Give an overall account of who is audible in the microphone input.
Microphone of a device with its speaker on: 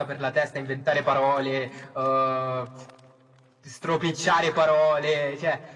echo only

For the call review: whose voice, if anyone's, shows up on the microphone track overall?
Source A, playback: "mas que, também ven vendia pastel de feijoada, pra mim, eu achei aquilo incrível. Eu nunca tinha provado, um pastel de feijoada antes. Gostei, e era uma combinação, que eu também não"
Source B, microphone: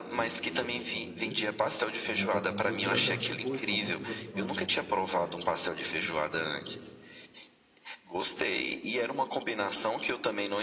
both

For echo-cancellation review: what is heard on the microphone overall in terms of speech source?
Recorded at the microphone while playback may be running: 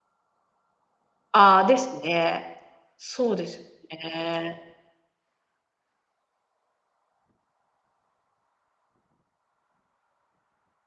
user only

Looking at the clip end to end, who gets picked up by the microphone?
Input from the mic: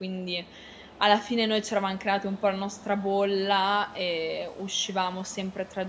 user only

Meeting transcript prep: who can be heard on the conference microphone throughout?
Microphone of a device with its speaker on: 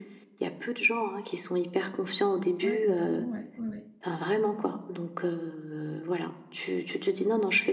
both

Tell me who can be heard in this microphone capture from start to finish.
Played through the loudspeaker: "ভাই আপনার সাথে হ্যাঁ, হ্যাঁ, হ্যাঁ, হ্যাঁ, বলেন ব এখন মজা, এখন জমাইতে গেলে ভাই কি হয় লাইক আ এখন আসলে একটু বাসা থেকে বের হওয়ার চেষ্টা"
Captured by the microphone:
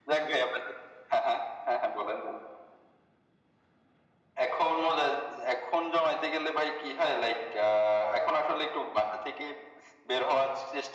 echo only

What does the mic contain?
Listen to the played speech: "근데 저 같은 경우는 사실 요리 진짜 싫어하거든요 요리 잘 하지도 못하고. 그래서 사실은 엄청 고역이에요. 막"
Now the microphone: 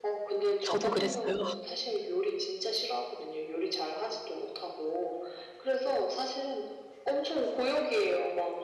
both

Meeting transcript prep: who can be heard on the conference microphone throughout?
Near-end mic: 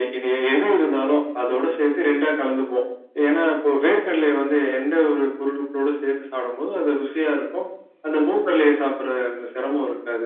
echo only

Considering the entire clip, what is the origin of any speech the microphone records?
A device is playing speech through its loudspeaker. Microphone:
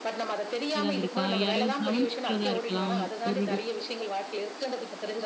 both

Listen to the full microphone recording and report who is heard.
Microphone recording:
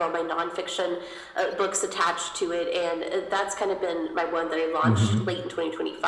both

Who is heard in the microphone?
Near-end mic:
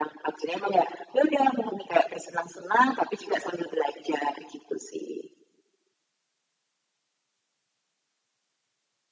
echo only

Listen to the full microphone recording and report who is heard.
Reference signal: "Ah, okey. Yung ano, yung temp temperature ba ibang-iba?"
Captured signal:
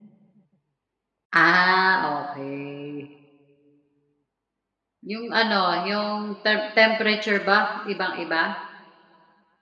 echo only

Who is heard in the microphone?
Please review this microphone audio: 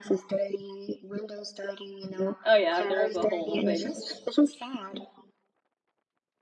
both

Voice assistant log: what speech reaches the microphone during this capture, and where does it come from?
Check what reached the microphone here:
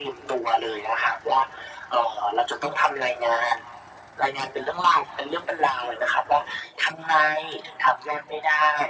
echo only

